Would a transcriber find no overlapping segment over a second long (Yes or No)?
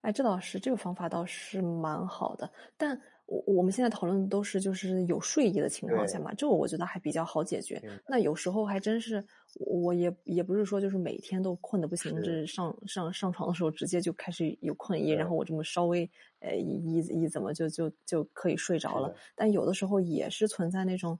Yes